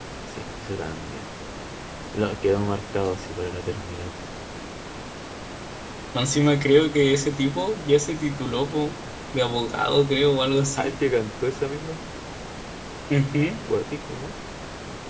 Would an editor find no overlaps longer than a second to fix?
Yes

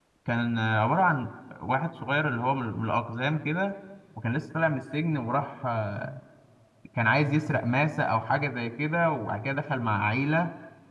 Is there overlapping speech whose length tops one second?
No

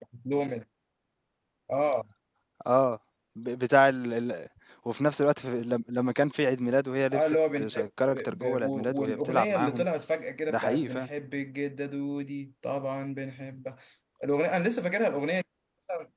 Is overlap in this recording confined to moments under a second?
No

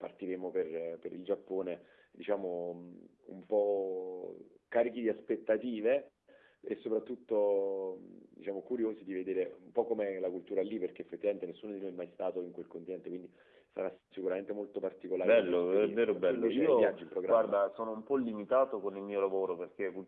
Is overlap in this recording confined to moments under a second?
No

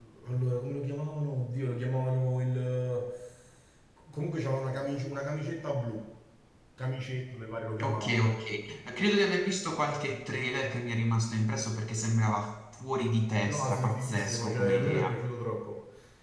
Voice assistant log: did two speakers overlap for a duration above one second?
Yes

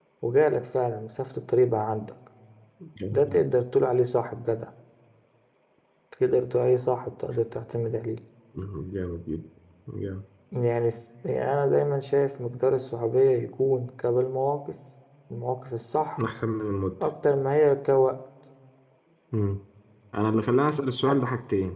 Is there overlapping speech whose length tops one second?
No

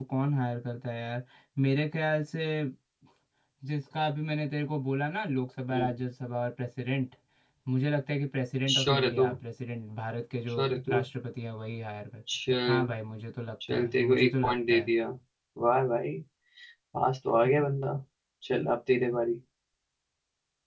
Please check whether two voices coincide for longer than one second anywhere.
Yes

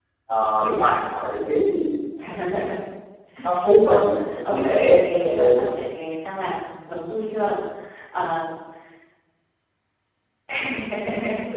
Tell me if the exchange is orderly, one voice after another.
No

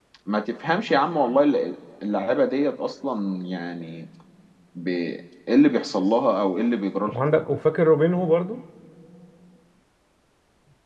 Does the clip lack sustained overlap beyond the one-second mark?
Yes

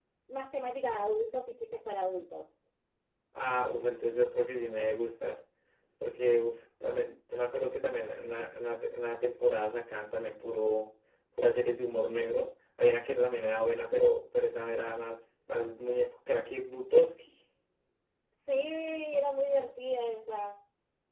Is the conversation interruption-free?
Yes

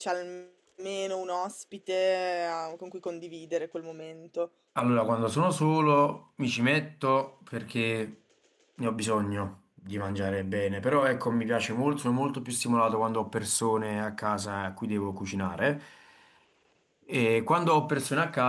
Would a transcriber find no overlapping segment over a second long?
Yes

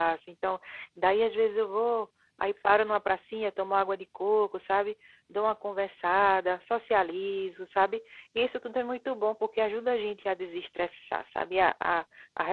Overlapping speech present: No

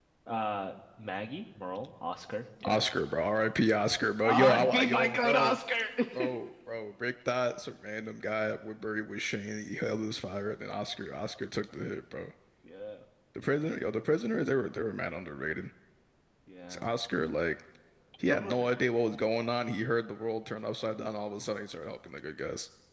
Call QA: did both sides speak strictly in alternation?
No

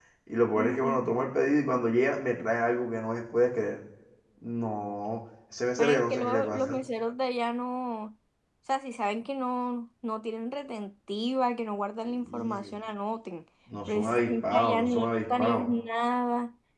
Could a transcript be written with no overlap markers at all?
No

